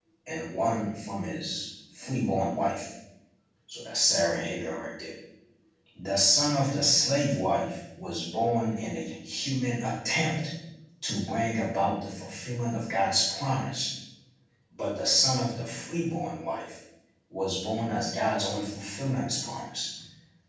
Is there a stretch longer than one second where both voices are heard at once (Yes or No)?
No